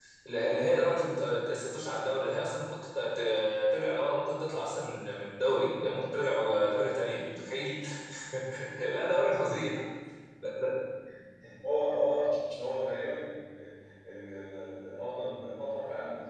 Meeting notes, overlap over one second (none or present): none